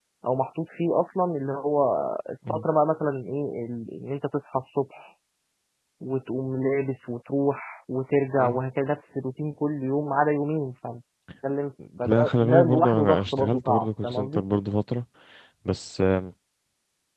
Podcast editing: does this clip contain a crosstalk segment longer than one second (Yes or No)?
Yes